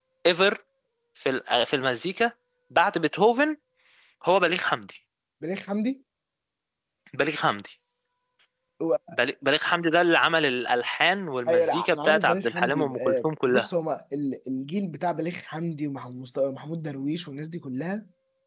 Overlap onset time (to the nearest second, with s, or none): 11 s